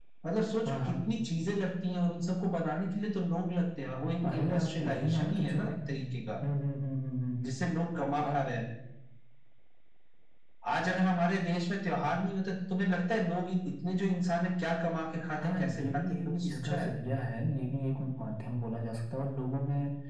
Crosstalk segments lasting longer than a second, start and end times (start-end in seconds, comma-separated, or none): 4.3-5.8, 15.4-16.9